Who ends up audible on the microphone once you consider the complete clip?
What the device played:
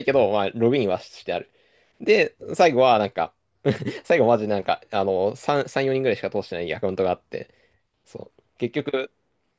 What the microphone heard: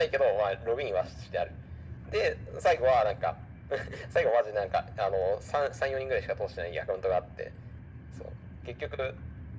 echo only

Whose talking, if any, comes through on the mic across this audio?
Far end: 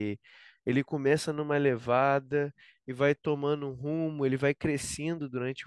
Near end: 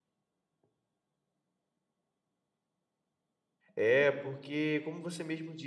user only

